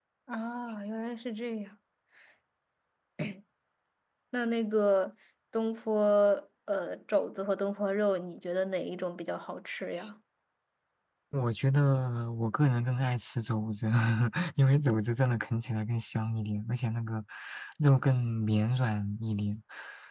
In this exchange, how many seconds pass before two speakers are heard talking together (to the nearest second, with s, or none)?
none